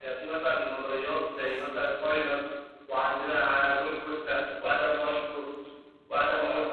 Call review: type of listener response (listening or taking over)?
taking over